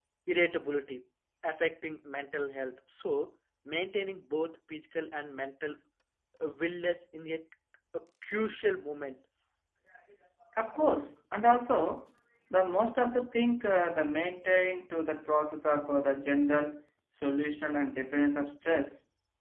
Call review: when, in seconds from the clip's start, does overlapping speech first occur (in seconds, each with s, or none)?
none